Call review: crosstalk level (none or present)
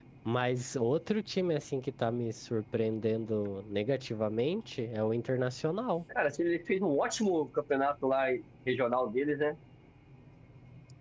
none